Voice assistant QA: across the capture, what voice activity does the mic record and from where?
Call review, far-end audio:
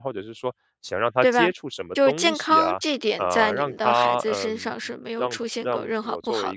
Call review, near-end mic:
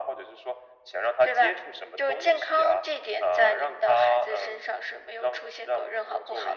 echo only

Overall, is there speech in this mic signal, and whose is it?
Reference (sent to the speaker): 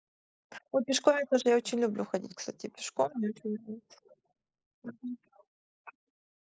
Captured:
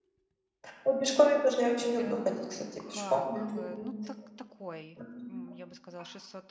both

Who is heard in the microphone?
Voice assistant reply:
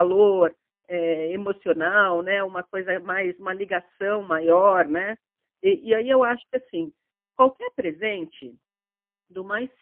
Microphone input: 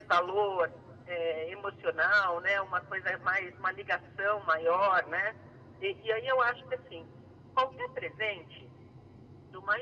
echo only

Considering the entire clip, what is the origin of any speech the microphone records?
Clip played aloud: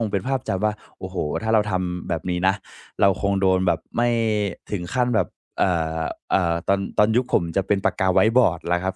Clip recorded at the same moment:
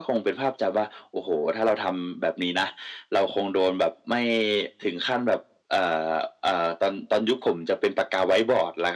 echo only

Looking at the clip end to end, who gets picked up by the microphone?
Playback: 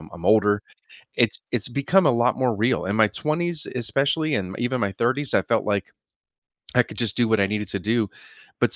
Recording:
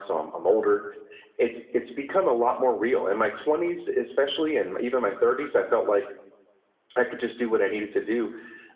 echo only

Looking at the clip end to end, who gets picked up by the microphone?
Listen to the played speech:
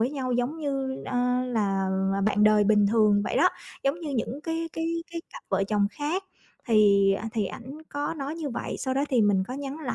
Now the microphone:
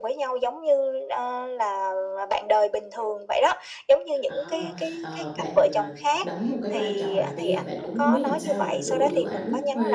both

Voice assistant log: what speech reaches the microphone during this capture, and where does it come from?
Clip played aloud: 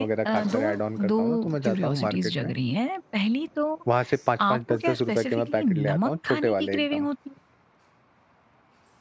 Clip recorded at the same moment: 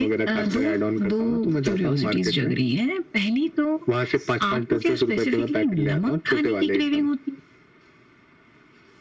echo only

